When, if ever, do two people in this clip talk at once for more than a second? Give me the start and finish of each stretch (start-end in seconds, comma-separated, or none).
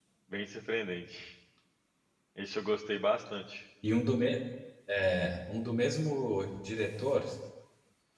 none